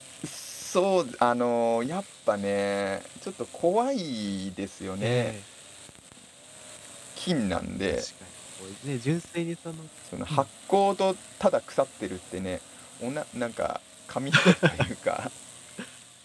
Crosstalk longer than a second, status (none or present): none